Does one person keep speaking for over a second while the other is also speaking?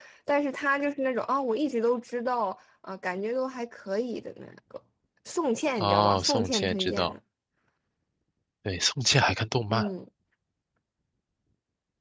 Yes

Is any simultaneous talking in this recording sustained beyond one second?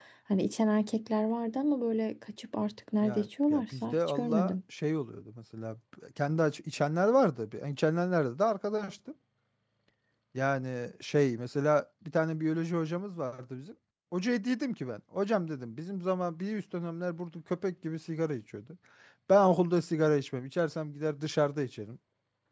Yes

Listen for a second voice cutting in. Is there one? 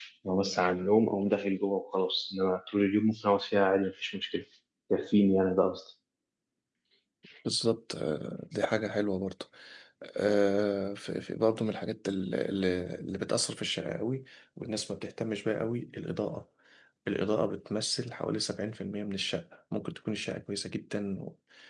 No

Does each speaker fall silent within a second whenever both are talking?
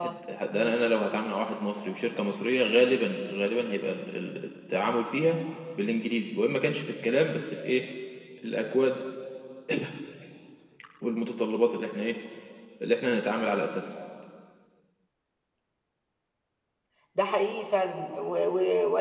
Yes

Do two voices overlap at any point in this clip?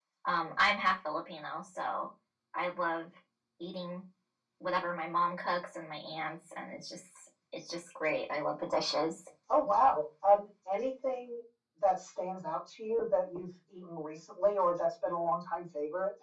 No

